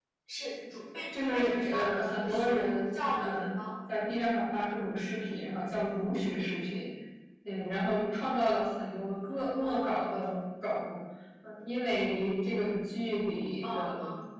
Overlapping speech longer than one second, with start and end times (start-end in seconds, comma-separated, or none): 1.1-3.5